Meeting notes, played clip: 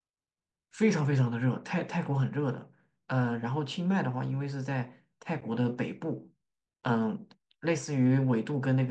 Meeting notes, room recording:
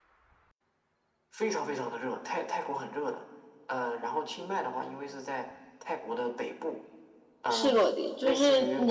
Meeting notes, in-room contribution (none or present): present